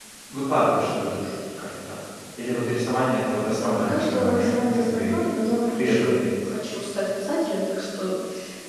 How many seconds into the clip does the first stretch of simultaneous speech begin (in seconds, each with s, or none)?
3.6 s